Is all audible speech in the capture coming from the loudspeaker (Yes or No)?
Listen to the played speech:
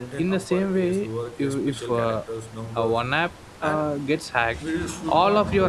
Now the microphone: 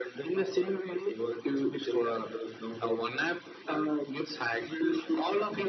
Yes